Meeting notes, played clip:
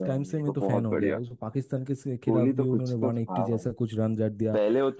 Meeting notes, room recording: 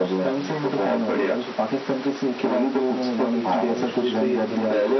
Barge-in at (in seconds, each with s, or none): 3.4 s